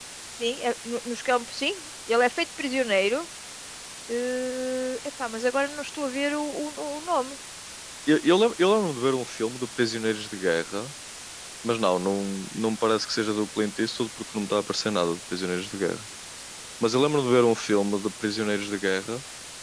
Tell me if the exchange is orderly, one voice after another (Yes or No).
Yes